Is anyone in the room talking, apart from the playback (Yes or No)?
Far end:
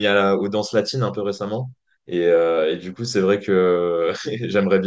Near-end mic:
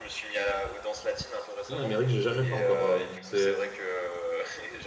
Yes